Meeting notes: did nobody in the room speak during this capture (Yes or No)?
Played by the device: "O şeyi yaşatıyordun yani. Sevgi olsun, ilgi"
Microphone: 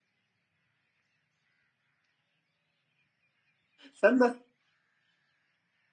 No